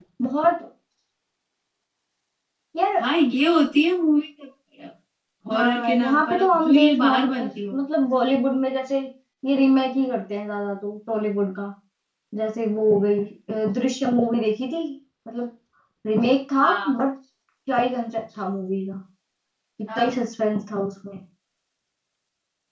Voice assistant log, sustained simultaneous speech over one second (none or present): present